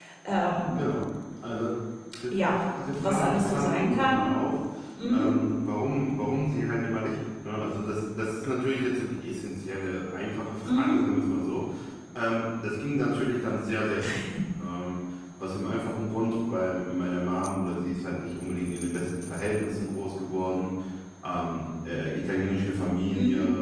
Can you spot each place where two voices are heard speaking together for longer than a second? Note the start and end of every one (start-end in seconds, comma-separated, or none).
3.0-4.3